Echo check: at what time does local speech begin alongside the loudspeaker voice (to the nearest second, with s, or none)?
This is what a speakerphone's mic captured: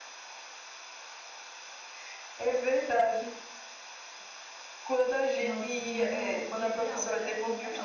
5 s